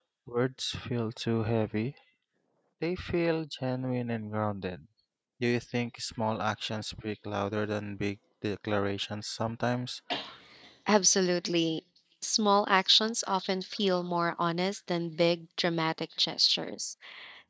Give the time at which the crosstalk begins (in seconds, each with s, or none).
none